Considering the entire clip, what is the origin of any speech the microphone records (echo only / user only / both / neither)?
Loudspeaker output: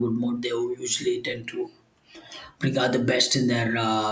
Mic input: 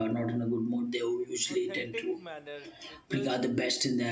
both